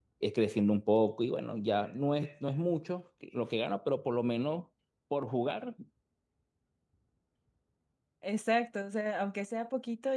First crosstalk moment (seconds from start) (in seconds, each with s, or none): none